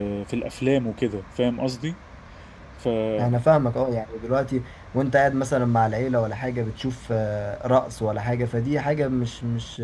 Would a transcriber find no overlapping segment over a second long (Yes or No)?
Yes